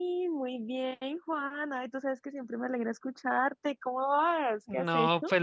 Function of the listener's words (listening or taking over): taking over